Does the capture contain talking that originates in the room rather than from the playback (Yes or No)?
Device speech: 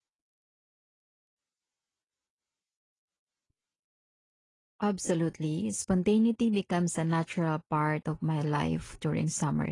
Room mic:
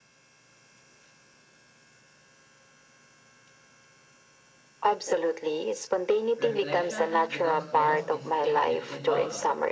Yes